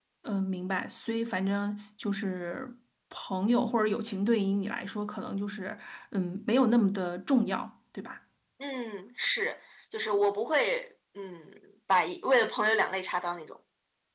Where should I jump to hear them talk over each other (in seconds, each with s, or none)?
none